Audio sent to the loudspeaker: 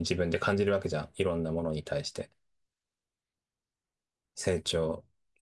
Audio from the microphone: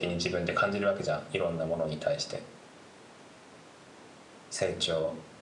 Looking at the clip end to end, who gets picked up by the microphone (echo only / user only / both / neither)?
echo only